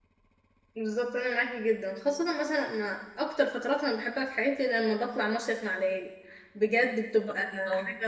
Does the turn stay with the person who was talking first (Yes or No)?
Yes